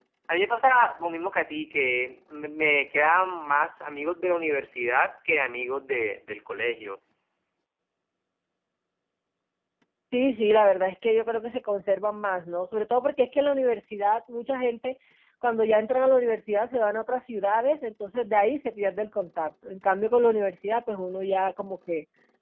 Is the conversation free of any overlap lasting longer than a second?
Yes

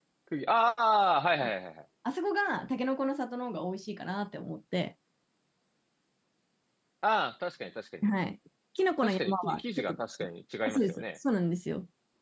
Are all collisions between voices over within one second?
No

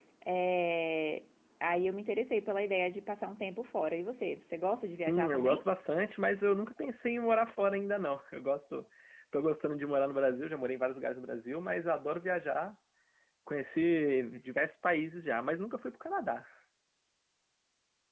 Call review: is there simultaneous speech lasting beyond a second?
No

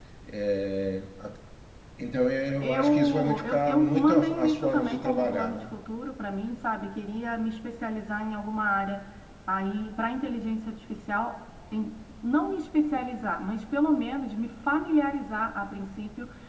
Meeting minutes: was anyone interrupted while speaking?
Yes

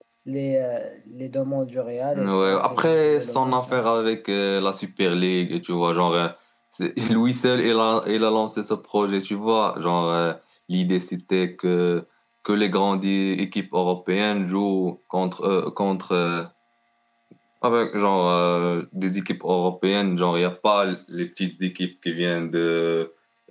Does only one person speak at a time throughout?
No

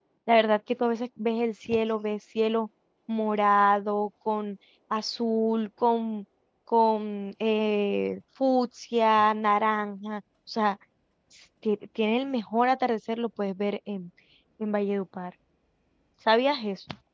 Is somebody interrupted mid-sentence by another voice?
No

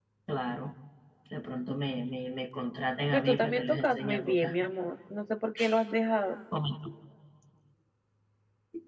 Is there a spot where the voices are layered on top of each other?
Yes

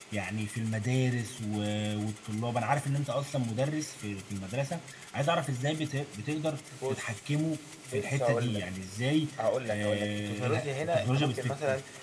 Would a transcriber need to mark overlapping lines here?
Yes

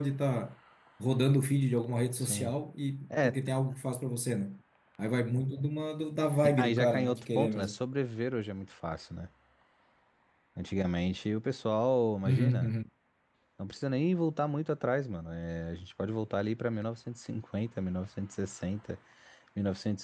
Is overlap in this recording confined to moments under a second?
No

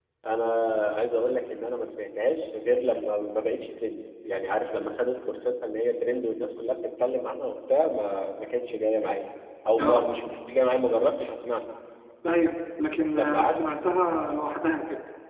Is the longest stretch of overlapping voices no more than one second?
Yes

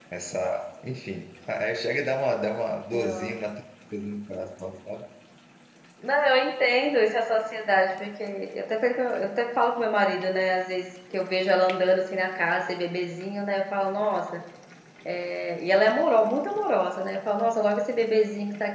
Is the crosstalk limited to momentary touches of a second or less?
Yes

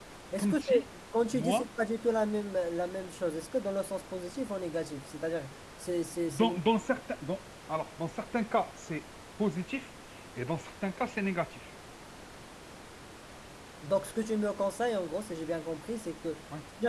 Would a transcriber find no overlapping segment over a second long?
Yes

